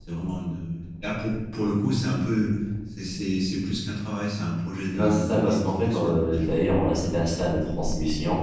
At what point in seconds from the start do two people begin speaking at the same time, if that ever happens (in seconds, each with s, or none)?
4.9 s